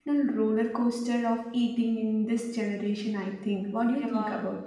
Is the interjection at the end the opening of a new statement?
Yes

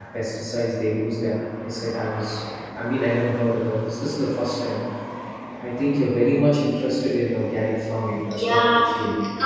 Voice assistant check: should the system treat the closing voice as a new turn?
Yes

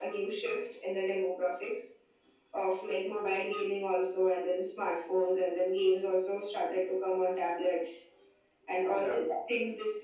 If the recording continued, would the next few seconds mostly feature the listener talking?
No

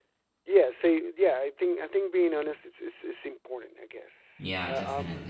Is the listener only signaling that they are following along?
Yes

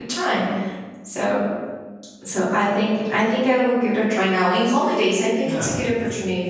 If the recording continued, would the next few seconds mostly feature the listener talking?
No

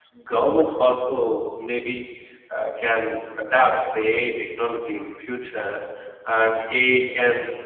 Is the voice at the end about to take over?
No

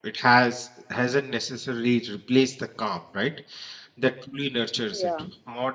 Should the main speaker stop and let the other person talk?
No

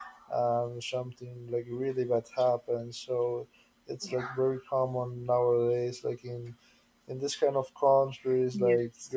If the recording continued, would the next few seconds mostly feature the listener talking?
No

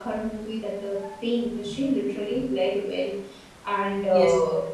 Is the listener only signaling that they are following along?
No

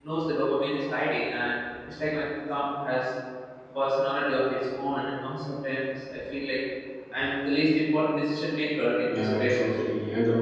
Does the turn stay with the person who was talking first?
No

